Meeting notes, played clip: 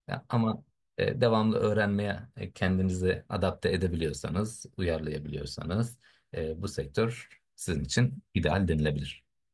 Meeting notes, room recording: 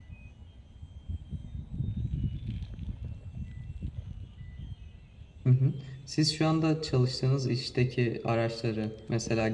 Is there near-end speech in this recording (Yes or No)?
Yes